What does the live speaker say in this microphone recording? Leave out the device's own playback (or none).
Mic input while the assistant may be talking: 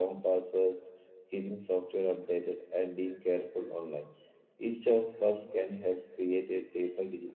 none